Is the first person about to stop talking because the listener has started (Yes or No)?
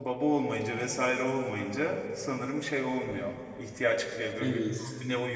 No